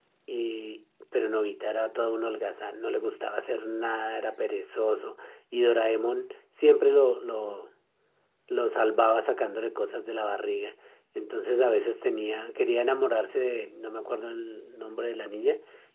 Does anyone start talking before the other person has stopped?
No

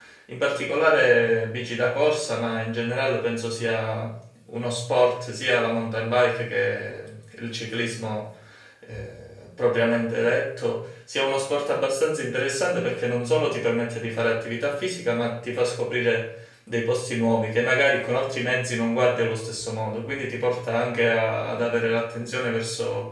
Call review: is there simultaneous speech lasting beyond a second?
No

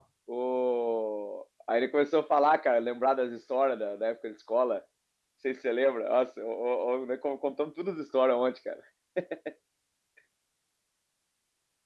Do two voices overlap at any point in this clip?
No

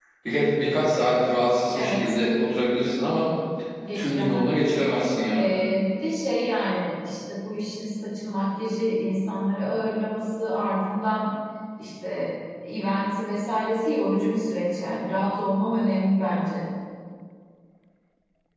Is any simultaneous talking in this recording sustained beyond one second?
No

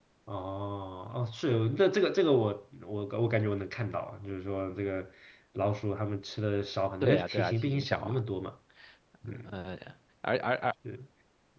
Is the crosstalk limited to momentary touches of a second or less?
No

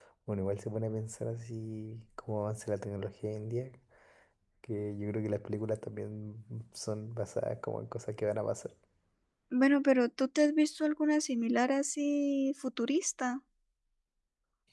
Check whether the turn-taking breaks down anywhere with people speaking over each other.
No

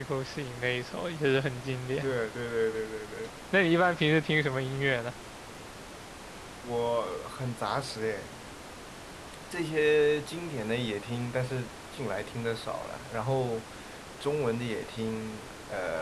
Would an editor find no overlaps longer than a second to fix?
Yes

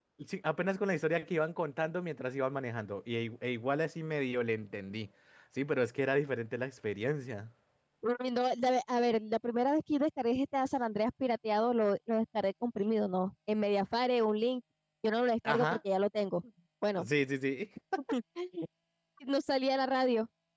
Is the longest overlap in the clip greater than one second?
No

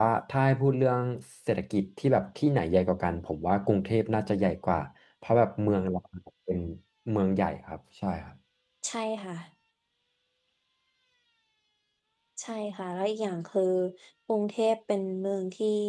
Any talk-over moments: No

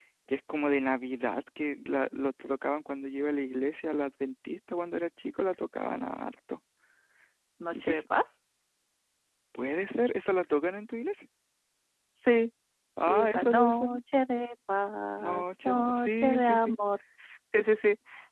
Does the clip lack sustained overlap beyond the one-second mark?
No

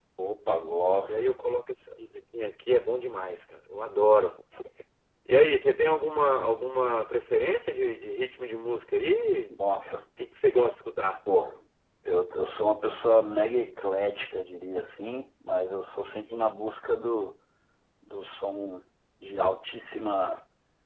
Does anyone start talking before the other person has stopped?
No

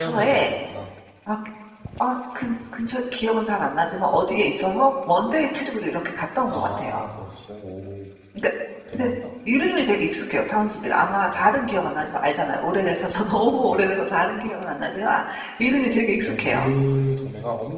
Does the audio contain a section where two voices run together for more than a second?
No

